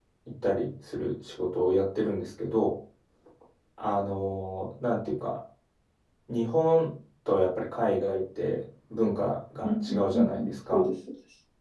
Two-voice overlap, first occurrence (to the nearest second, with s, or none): 10 s